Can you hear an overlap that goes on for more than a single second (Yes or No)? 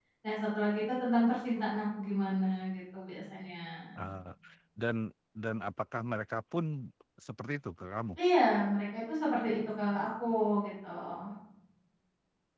No